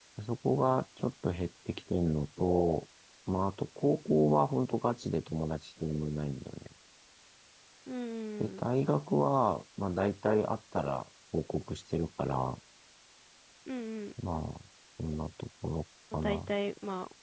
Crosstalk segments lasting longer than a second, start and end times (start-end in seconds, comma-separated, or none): none